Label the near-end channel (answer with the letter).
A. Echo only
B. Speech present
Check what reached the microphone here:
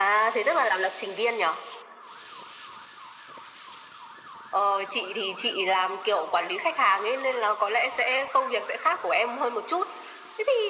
A